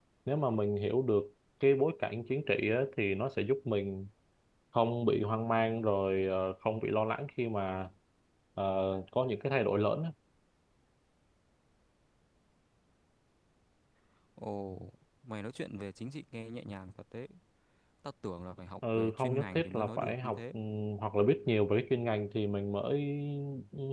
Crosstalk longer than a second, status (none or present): present